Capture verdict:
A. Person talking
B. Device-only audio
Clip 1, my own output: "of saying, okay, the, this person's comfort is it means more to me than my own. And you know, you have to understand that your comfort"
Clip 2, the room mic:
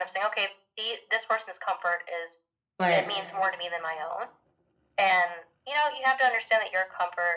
A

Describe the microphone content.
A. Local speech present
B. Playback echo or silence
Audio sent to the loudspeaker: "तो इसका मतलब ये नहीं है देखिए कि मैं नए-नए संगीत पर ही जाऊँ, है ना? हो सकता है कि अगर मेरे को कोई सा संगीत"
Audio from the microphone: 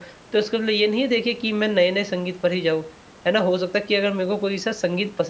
B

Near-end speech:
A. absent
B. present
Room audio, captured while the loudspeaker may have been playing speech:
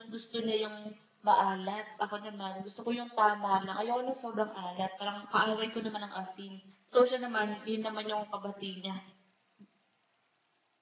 A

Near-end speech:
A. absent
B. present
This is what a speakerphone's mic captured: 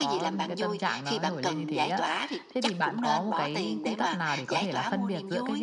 A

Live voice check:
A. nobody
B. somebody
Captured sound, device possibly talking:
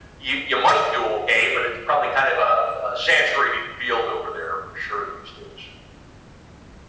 A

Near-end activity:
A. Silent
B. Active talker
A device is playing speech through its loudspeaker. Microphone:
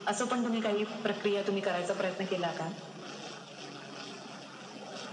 A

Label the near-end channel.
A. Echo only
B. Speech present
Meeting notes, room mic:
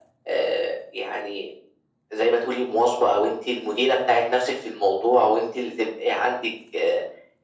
A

